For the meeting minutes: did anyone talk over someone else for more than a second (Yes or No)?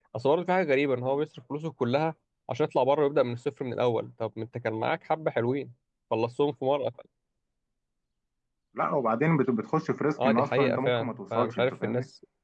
Yes